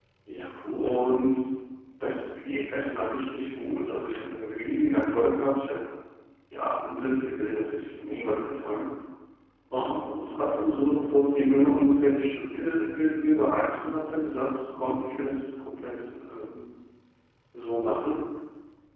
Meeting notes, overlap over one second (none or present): none